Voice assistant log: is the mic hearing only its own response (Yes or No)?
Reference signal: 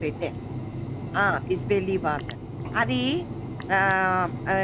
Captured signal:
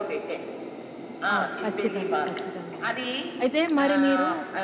No